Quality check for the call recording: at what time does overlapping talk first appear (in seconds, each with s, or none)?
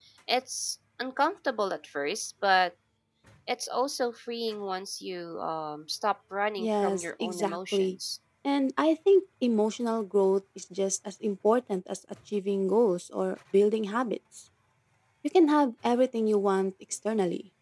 6.6 s